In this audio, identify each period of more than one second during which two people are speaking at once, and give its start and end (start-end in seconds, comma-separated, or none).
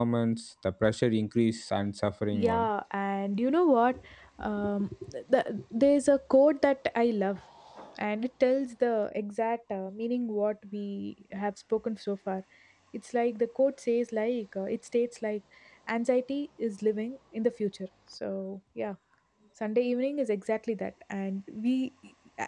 none